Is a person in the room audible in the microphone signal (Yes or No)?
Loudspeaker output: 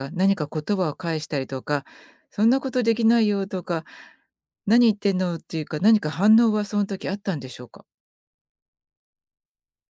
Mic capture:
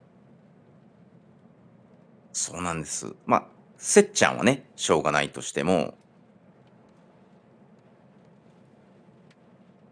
Yes